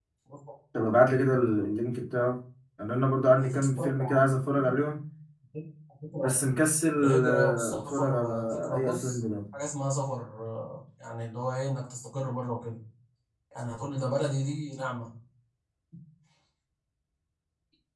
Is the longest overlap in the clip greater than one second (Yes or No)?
Yes